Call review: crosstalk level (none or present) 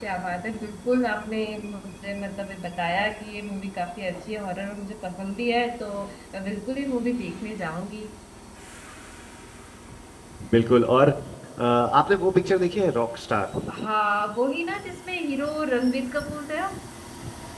none